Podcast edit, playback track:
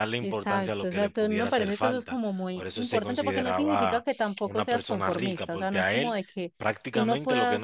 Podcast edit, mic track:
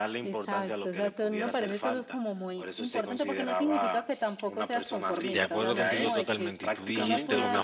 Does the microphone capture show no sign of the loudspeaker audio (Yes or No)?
No